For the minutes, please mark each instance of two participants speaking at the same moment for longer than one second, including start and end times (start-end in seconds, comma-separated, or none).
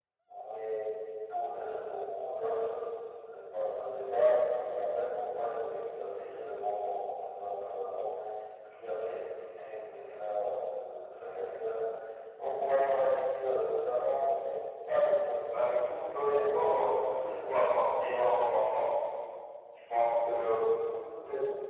15.9-17.8